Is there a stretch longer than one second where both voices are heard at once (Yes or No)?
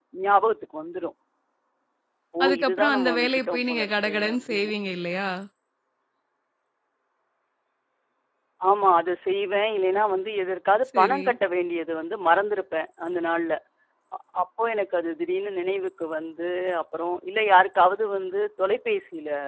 Yes